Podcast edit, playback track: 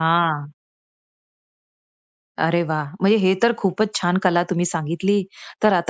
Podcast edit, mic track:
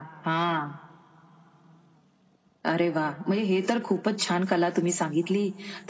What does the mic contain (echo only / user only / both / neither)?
echo only